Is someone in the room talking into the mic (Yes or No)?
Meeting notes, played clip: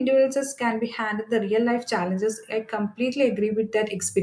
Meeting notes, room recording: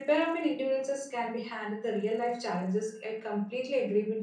No